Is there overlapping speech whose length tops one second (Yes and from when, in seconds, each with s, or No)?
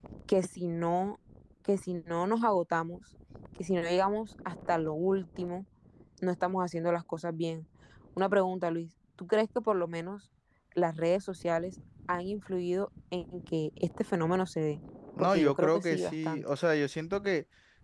Yes, from 15.2 s